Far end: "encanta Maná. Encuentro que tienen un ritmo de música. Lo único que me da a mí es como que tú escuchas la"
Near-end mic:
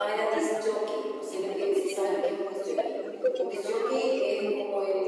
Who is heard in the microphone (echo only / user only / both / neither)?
both